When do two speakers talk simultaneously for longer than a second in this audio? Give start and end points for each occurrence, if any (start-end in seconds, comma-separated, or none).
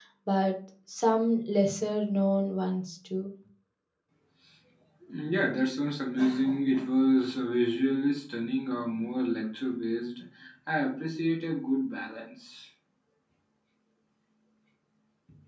none